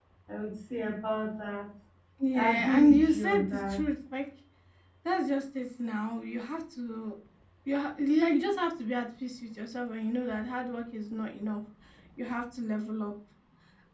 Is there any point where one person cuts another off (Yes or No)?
Yes